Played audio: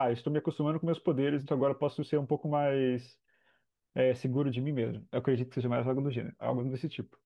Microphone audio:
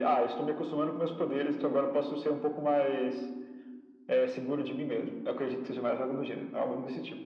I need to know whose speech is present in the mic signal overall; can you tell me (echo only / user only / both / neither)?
echo only